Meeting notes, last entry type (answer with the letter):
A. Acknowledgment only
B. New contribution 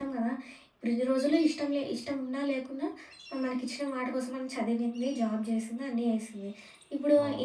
A